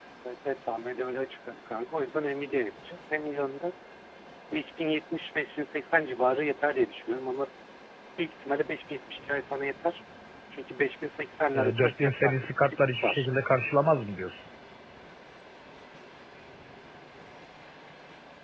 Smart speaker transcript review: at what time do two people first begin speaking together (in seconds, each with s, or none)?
11.5 s